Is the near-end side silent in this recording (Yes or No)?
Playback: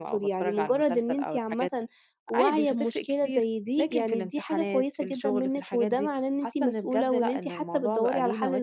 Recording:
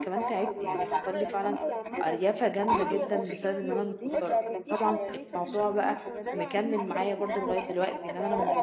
No